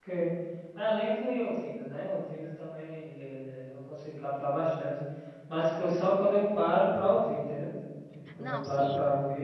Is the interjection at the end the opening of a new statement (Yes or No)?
No